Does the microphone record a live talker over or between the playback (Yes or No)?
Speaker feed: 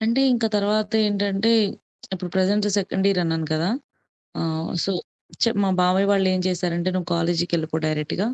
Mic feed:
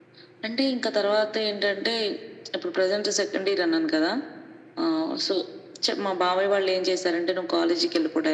No